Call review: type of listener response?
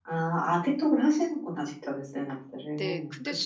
taking over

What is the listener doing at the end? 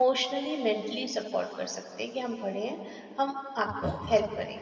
listening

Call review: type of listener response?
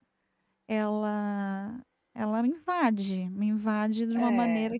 listening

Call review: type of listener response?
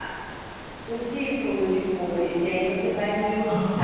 listening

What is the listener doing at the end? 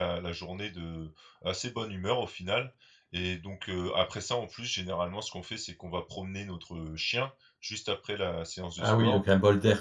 taking over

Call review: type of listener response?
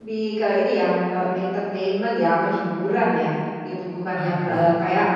listening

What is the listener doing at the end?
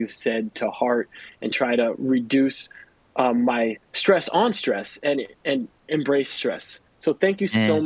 listening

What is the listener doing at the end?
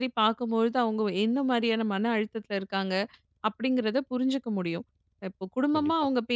listening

